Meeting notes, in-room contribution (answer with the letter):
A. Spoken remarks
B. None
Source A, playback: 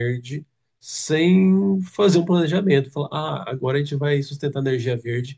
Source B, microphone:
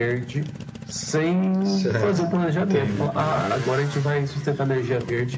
A